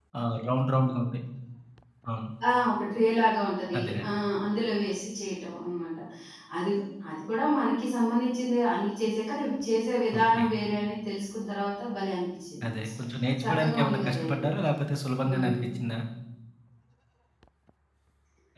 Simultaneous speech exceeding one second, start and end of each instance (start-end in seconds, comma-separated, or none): 13.5-14.7